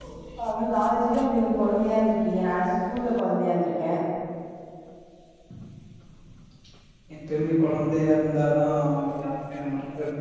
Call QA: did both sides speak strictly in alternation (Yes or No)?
Yes